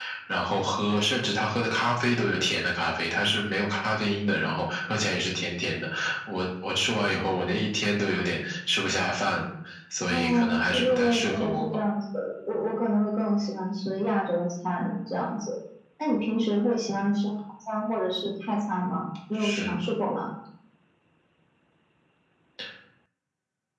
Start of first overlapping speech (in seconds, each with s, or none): 10.1 s